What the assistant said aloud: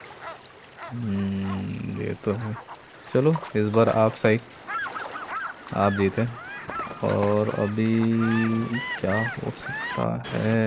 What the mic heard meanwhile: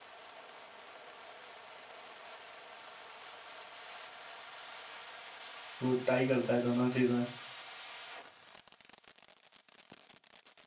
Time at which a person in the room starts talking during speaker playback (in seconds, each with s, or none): 5.8 s